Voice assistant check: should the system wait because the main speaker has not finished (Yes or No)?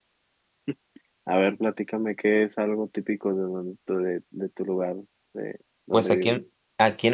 No